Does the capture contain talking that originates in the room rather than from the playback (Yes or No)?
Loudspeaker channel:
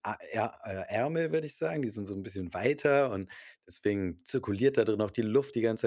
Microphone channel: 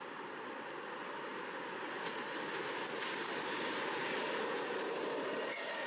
No